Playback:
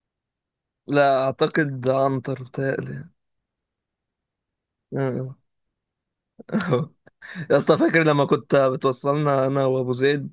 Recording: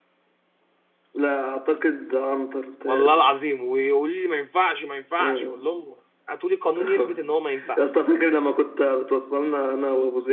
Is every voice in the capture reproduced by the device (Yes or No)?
No